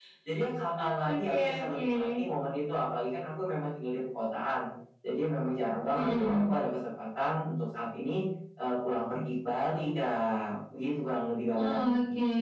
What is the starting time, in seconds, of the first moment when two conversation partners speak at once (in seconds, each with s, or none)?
0.8 s